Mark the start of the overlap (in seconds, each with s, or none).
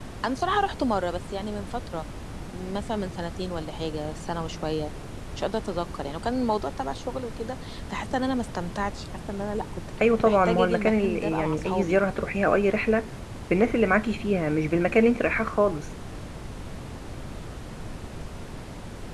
10.0 s